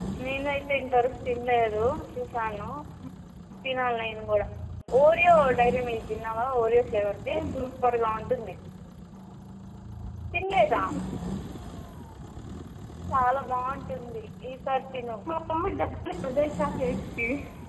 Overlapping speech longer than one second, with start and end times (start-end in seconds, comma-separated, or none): none